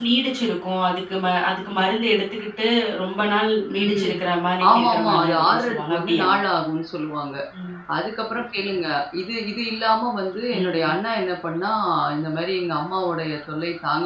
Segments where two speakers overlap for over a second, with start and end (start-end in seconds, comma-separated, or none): 4.7-6.3